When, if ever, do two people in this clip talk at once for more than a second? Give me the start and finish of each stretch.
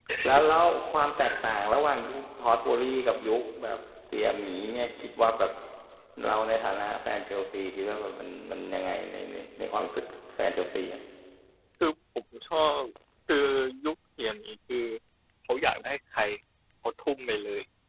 none

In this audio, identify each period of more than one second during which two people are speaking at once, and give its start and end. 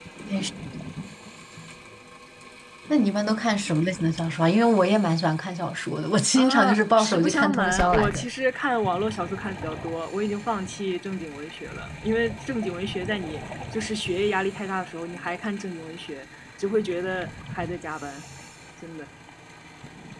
6.3-8.2

